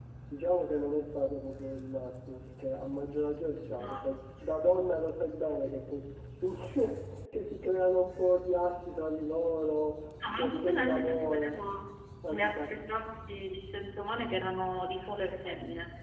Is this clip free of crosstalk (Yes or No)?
No